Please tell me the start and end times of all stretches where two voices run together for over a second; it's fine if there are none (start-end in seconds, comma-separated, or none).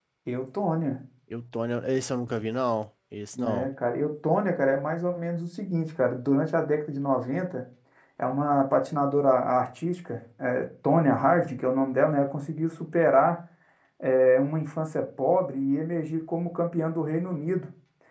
none